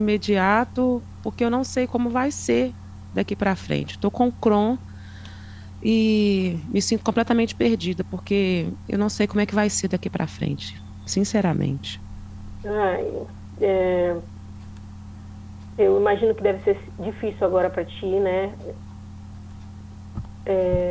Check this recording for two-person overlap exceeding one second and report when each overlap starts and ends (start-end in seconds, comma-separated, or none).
none